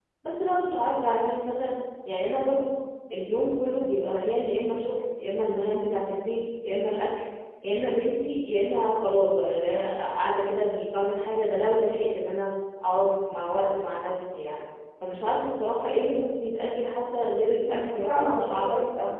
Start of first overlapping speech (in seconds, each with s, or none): 17.6 s